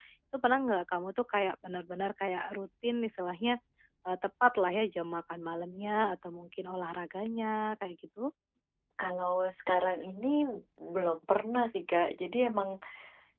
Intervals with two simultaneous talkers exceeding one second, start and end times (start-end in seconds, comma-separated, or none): none